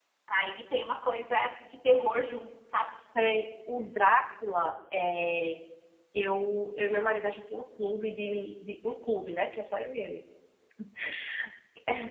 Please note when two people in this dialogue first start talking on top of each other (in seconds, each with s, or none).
none